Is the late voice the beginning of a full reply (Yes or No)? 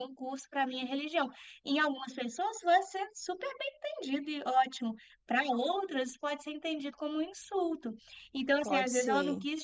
No